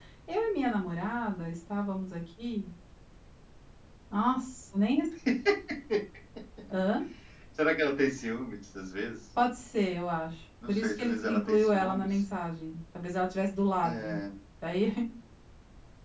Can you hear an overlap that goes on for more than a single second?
Yes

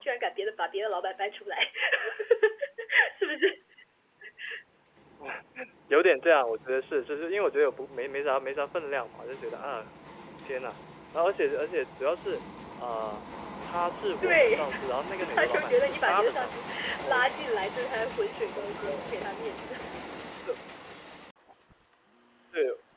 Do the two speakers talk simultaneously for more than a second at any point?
Yes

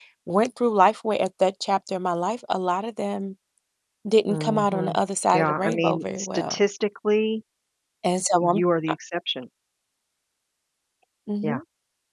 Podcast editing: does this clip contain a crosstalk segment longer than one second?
Yes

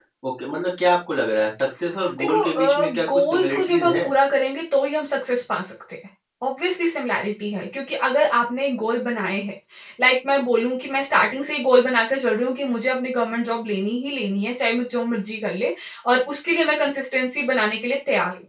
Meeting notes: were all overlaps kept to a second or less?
No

